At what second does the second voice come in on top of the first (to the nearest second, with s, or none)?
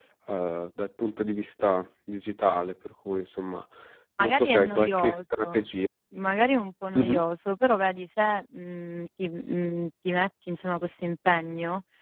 4 s